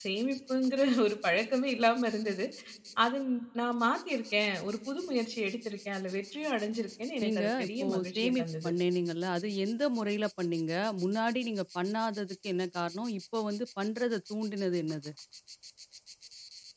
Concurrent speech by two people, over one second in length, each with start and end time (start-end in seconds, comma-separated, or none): 7.2-8.7